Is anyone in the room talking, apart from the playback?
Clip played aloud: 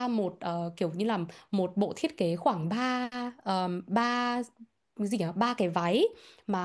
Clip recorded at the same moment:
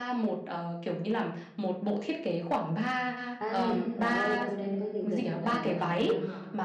Yes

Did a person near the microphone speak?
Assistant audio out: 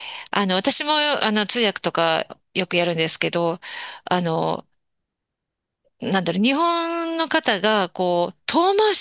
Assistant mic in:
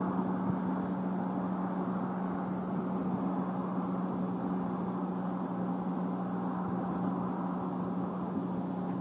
No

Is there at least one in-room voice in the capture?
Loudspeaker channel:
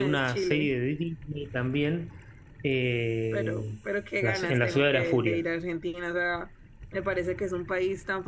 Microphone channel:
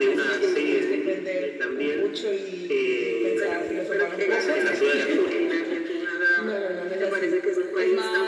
Yes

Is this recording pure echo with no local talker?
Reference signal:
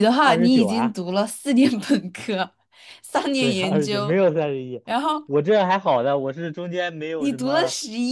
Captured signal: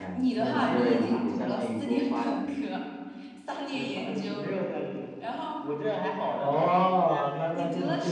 No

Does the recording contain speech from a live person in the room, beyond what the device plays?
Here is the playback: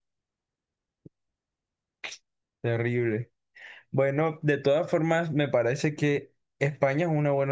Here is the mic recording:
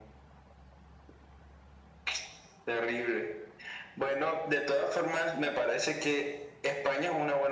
No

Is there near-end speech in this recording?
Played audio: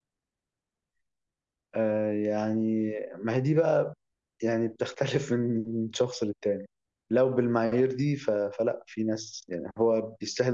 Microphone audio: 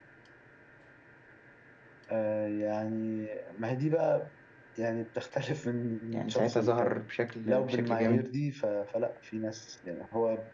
Yes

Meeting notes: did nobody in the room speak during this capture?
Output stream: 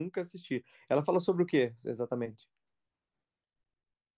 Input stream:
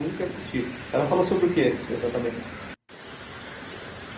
Yes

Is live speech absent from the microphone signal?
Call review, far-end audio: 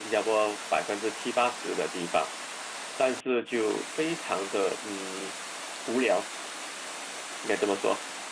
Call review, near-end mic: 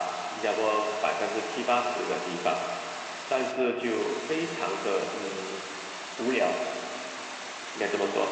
Yes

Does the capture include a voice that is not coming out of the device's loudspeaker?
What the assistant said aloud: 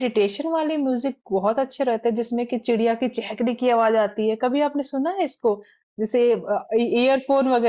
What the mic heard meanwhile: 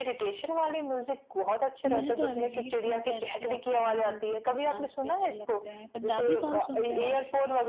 Yes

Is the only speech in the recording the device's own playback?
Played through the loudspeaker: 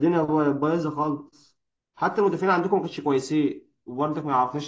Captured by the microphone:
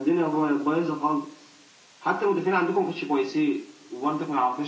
Yes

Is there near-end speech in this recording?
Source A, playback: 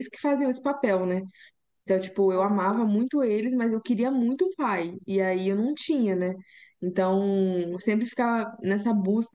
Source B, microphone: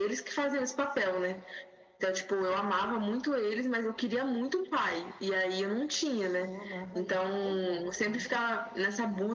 Yes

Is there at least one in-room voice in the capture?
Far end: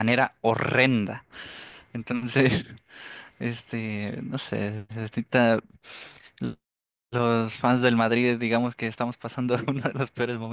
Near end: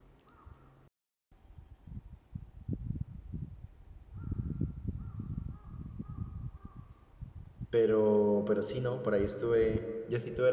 Yes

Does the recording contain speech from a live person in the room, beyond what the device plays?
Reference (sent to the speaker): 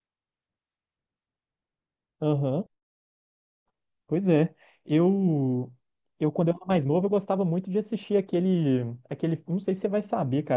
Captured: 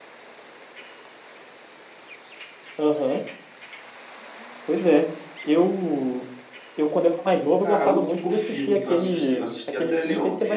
Yes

